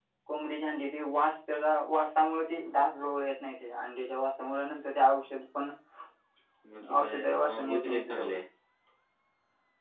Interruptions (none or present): present